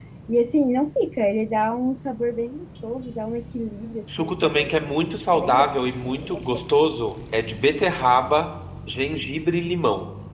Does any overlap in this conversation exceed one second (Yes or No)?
Yes